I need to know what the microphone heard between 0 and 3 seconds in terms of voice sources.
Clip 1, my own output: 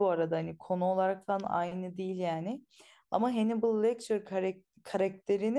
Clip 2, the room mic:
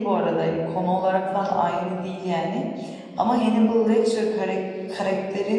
echo only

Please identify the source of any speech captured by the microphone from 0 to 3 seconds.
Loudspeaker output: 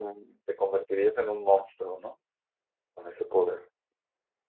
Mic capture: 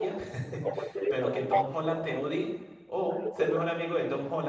both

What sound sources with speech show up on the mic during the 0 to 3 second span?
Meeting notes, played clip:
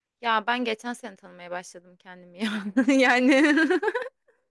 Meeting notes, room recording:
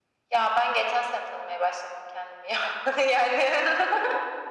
echo only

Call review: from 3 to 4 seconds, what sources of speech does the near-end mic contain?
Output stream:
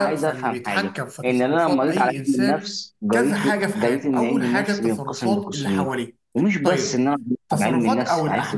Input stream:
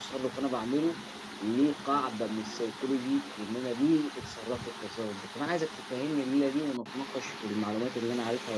user only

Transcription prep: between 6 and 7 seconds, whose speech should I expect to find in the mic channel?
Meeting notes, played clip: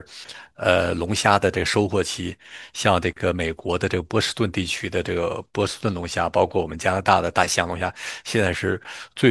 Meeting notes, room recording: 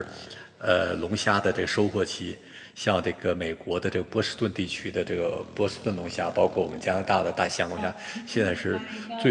echo only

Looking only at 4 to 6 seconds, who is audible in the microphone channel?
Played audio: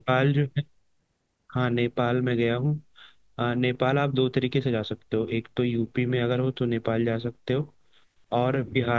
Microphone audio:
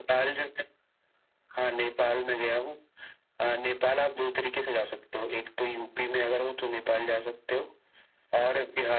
echo only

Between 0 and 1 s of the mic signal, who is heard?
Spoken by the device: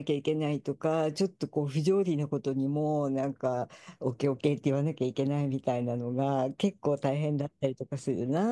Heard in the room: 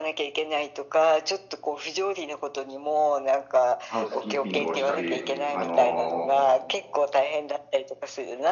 echo only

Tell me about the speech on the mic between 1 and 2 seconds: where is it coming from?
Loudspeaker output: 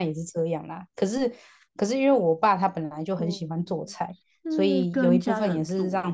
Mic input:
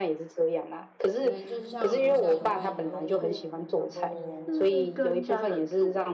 both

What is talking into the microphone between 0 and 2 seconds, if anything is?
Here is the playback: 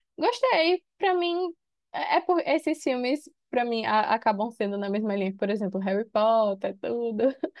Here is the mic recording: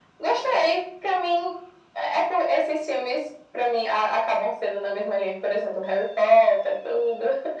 echo only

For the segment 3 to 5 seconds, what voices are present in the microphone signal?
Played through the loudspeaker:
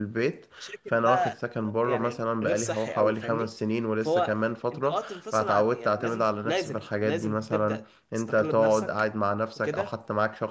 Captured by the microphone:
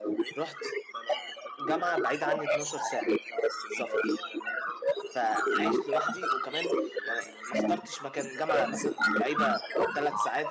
both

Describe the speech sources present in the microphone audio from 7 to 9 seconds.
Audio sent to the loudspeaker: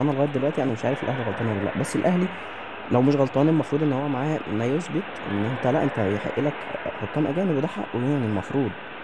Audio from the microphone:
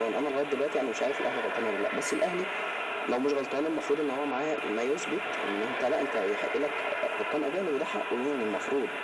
echo only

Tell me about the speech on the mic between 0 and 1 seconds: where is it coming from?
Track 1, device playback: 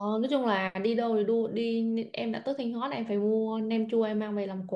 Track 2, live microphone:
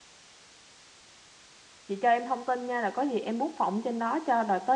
neither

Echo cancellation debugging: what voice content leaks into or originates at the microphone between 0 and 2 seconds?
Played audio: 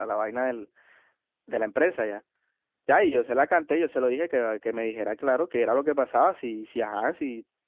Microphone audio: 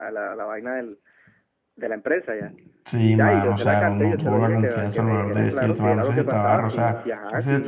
echo only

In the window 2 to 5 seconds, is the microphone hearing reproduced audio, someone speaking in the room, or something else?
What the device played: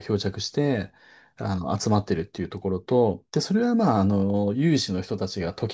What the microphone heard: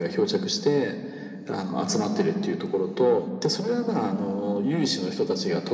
echo only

